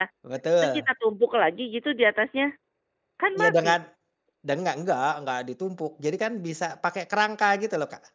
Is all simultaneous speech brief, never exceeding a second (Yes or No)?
Yes